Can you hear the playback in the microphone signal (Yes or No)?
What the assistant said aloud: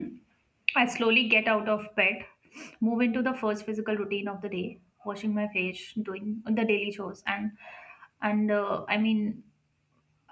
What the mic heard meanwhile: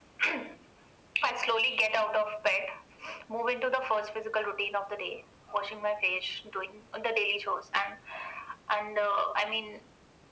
Yes